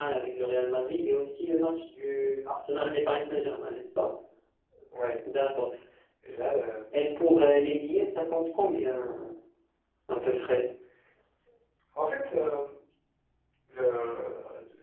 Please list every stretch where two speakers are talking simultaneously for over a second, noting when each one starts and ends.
none

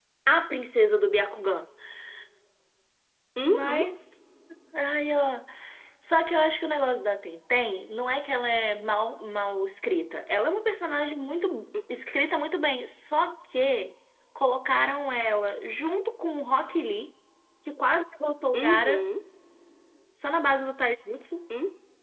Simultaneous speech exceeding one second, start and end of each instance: none

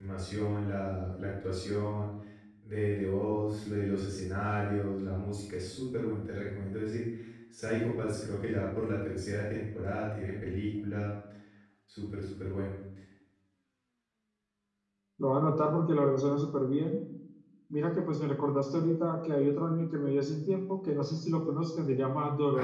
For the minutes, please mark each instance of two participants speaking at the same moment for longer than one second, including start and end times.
none

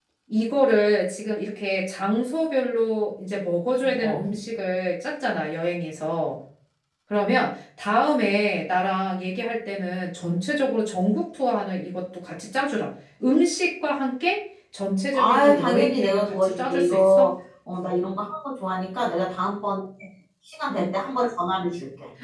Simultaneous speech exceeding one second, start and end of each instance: 15.1-17.3

